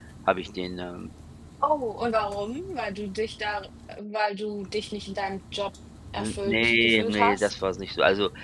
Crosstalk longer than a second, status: present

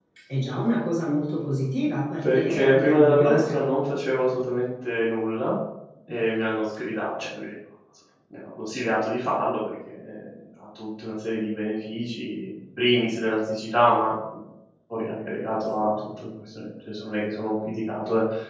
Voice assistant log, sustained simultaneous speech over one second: present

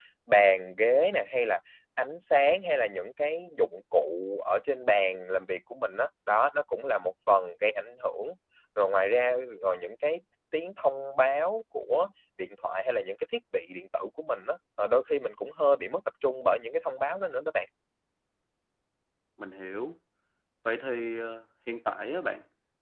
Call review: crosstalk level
none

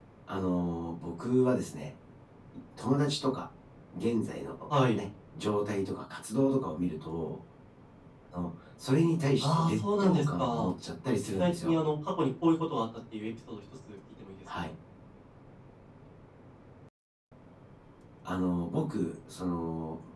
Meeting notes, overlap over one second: present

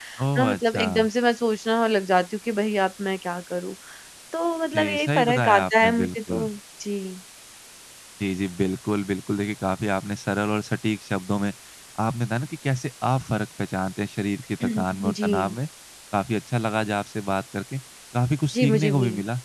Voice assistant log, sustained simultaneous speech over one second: present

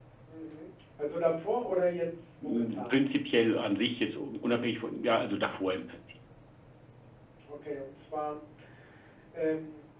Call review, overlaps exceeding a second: none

